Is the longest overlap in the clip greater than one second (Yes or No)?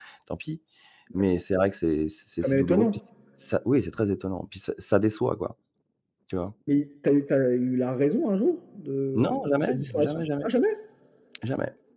Yes